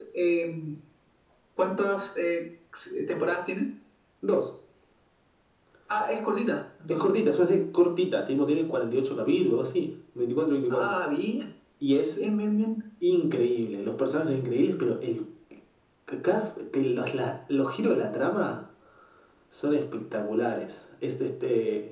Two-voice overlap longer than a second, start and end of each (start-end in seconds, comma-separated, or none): none